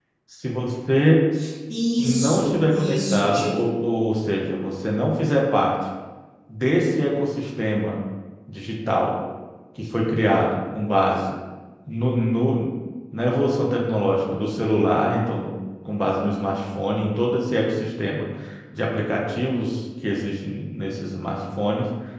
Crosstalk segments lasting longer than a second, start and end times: 2.0-3.6

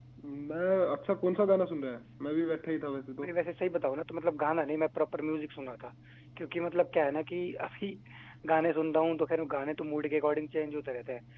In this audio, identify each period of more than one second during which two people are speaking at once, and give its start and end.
none

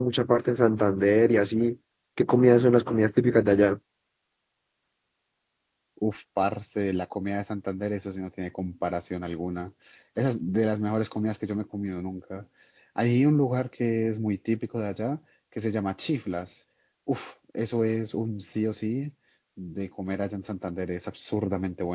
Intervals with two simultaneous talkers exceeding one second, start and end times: none

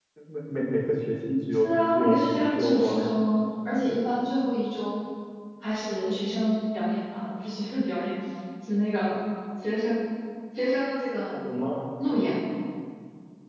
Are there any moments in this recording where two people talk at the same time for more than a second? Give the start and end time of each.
1.5-2.9

